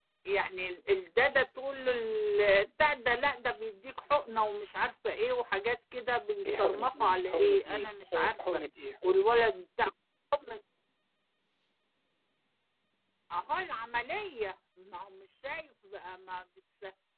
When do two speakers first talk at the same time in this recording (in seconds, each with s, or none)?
6.4 s